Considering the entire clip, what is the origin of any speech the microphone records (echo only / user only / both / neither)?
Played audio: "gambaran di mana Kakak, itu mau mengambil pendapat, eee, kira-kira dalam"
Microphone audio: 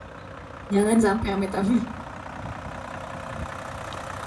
user only